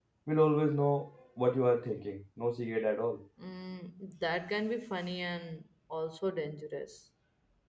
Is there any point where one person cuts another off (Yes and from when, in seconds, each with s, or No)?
No